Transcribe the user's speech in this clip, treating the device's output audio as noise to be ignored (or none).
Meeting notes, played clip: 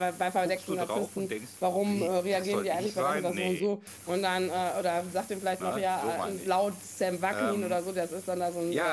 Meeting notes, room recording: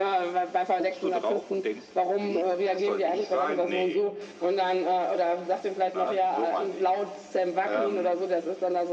none